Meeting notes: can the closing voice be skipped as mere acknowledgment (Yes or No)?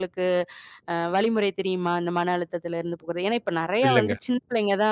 Yes